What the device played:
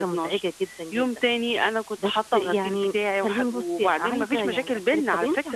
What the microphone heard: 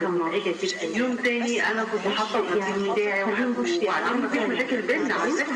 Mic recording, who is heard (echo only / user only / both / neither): both